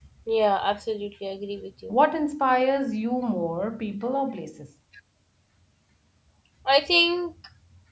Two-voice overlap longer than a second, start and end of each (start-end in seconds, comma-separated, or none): none